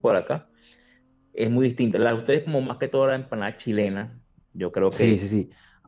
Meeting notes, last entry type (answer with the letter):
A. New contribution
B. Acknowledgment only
A